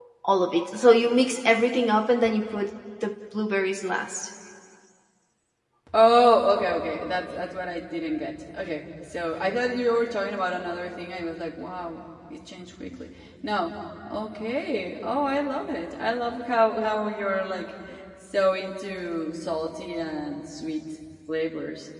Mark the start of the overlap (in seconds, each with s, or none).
none